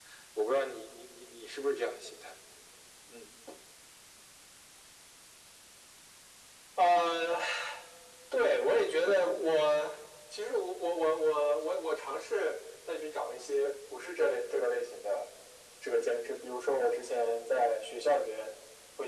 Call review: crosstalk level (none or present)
none